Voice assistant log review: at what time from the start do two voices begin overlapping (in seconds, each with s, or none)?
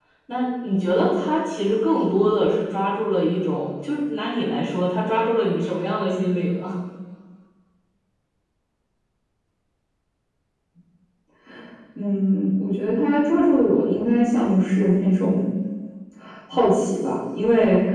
none